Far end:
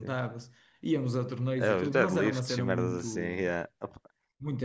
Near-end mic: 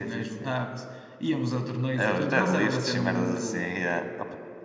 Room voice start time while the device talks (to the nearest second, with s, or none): none